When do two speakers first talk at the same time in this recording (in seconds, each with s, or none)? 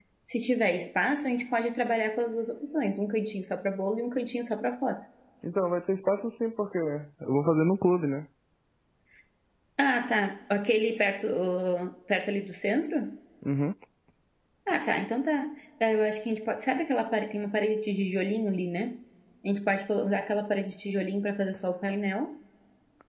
none